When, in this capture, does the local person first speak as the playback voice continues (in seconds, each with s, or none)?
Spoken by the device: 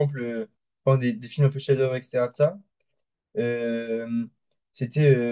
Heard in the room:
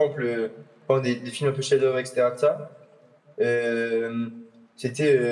none